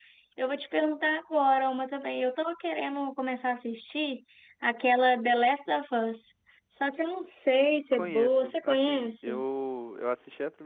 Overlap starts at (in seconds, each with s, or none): 7.9 s